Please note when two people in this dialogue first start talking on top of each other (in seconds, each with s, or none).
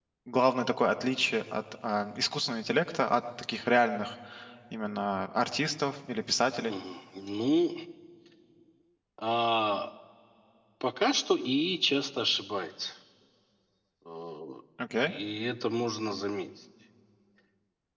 none